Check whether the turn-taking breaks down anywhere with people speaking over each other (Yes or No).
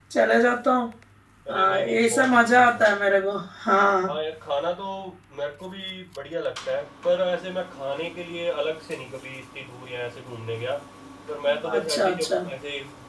Yes